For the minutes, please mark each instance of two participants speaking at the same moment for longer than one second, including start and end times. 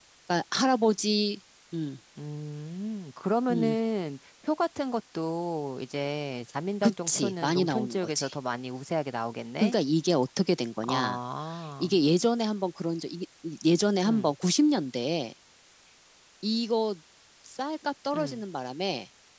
6.8-8.3

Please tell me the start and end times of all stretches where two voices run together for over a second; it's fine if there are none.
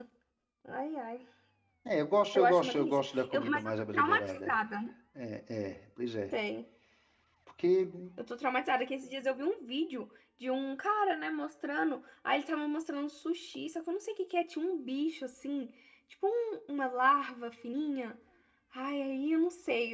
2.3-4.5

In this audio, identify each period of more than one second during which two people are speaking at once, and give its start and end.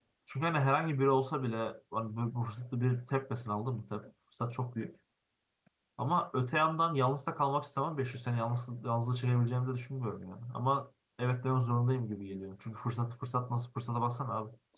none

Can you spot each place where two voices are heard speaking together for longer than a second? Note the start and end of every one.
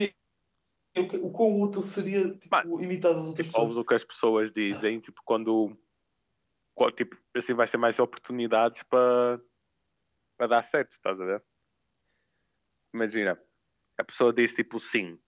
none

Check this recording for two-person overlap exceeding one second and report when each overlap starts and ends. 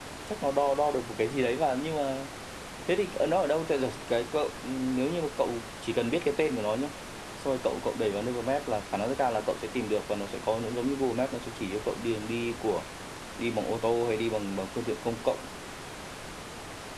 none

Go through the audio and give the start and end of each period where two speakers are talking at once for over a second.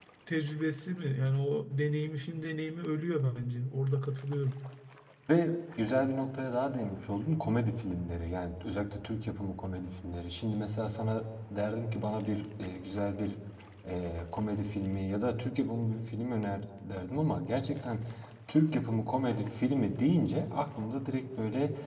none

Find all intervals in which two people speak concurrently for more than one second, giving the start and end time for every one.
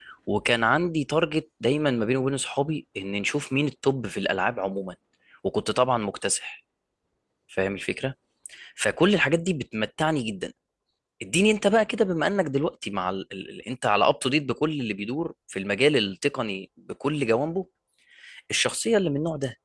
none

